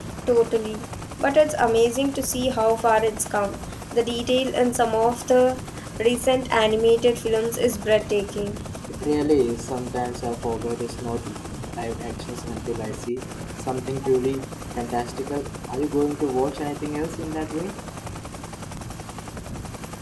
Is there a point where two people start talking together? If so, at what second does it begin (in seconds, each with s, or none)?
none